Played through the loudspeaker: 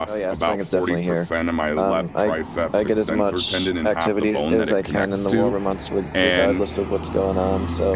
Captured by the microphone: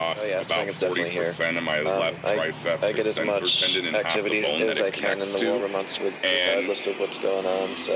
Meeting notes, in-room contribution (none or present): none